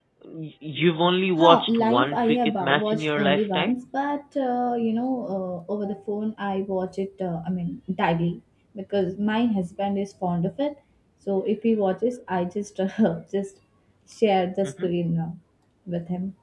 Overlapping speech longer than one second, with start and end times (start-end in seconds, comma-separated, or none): 1.4-3.7